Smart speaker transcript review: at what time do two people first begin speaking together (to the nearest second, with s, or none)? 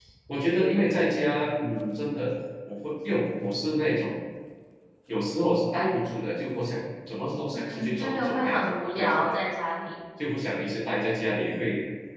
8 s